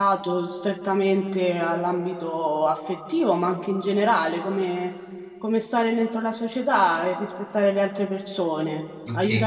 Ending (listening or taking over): taking over